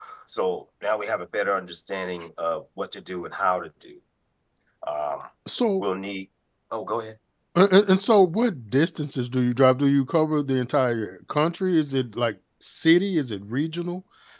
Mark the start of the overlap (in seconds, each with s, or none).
none